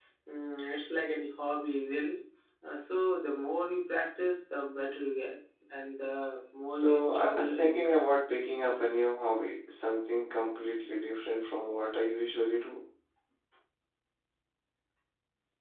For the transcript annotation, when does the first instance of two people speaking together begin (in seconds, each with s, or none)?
6.7 s